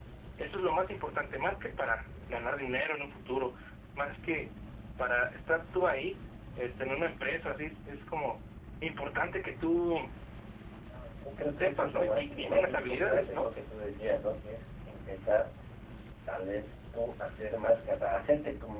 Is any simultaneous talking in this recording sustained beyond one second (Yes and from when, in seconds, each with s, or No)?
Yes, from 11.5 s